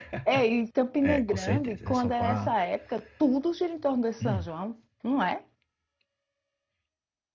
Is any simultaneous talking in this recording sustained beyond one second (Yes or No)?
Yes